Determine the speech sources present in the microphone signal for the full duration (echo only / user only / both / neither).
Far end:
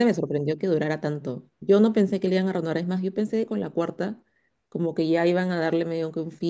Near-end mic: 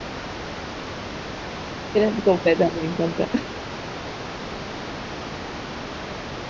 user only